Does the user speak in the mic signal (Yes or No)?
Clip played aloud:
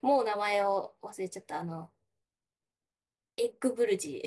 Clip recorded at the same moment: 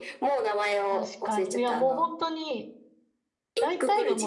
Yes